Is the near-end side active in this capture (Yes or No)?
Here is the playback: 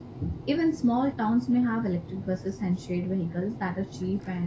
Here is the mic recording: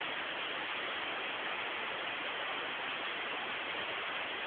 No